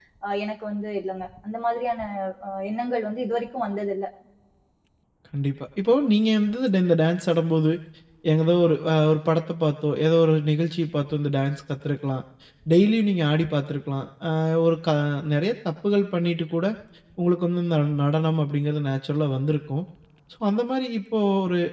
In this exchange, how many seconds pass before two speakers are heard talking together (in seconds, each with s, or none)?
none